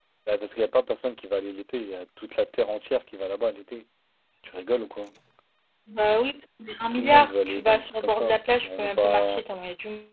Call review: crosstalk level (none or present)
present